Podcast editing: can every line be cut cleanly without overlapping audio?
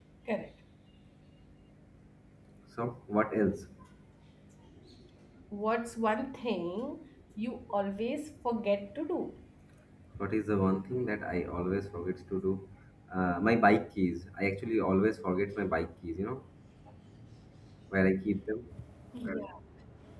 Yes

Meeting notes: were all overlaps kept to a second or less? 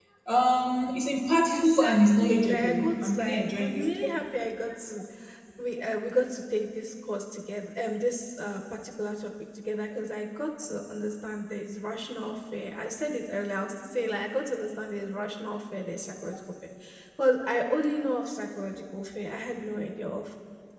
No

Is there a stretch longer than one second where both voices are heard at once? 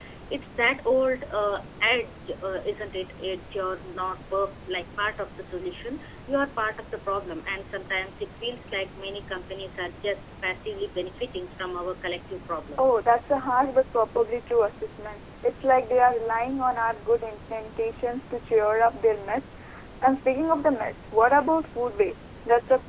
No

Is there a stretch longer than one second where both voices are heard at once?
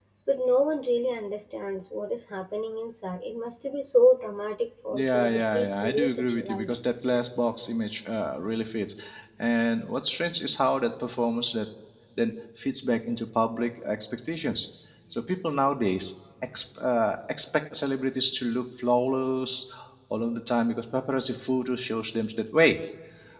Yes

